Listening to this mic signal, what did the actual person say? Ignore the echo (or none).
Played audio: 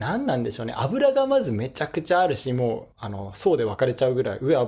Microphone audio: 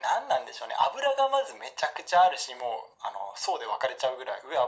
none